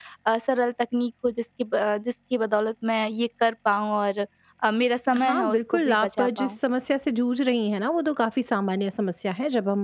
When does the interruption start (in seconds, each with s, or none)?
5.2 s